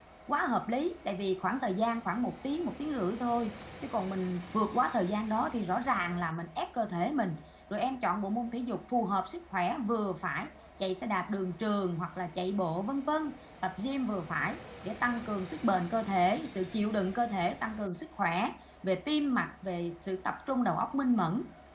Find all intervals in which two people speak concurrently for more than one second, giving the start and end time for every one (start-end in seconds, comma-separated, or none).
none